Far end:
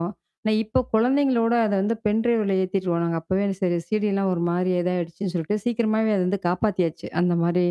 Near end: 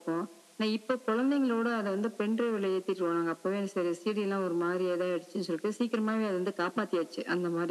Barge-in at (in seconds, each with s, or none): none